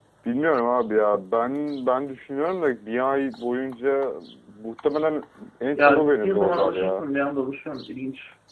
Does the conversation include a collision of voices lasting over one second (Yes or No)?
Yes